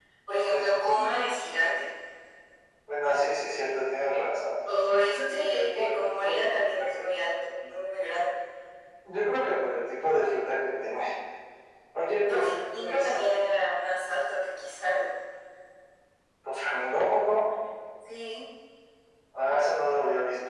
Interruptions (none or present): present